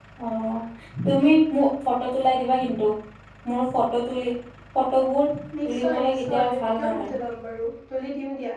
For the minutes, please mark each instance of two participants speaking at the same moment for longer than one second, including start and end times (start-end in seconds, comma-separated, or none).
5.6-7.1